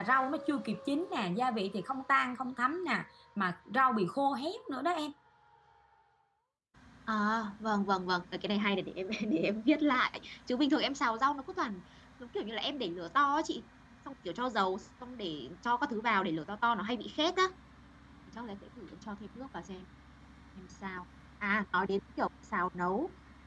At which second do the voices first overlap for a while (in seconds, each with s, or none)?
none